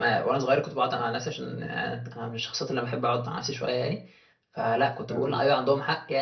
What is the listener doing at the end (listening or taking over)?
listening